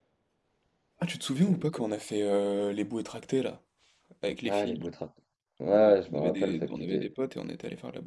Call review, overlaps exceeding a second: present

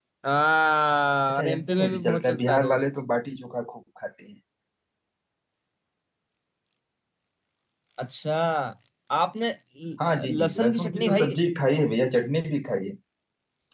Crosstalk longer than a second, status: present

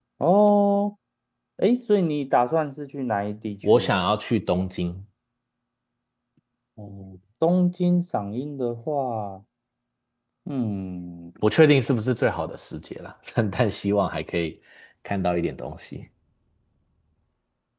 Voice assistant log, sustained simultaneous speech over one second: none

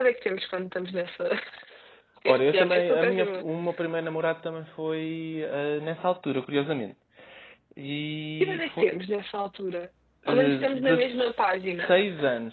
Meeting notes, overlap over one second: present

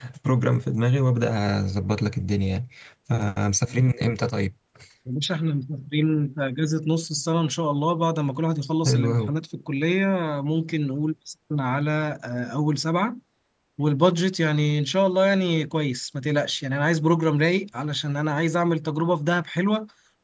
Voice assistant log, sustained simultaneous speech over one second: none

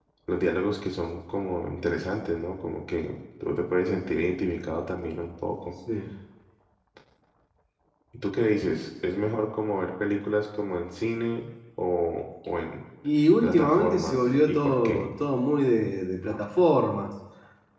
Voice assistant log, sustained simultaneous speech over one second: present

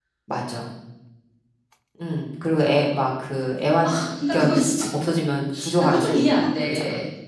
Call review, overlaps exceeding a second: present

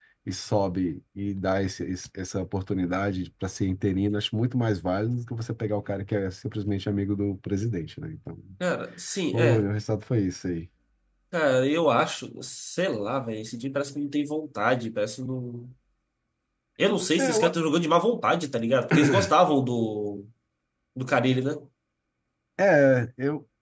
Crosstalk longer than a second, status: none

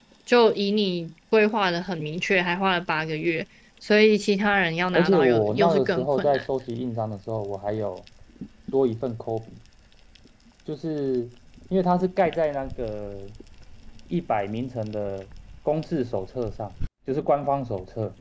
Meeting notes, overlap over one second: present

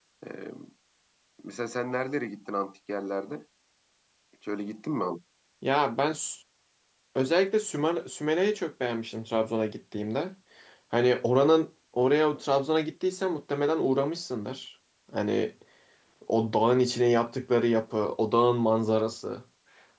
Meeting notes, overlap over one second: none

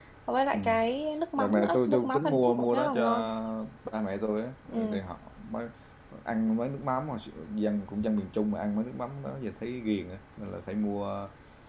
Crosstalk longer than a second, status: present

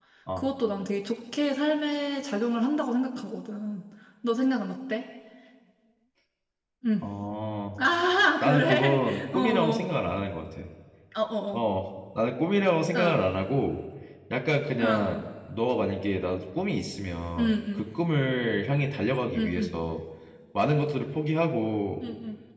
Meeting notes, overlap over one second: present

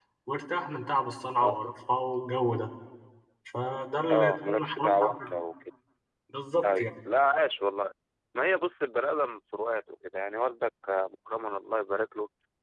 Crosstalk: present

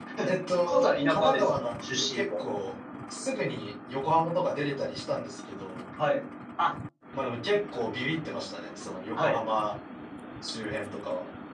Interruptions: present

